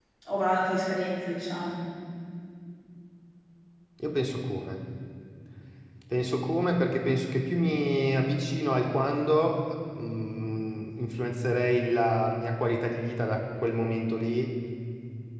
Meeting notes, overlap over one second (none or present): none